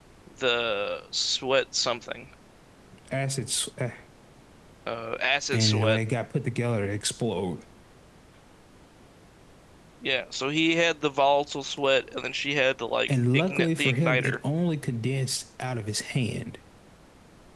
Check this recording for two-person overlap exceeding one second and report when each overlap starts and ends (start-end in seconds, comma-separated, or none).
13.1-14.4